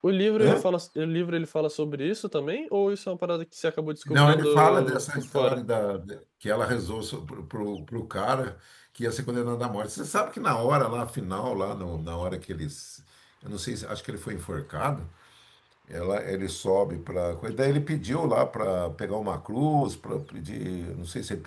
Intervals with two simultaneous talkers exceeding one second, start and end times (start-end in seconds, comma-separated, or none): 4.1-5.6